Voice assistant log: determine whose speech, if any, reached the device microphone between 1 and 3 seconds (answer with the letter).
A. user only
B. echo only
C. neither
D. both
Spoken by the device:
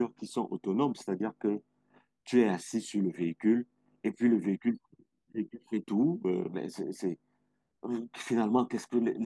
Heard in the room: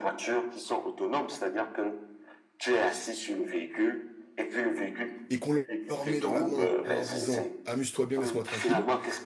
B